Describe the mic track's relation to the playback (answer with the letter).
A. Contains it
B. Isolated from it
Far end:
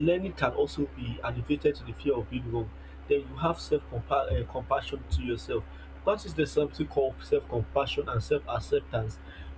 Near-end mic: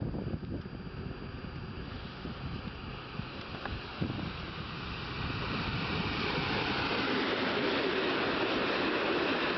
B